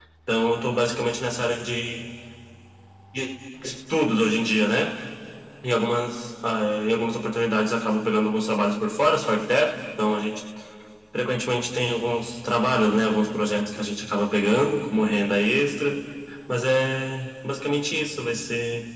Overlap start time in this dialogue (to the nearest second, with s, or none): none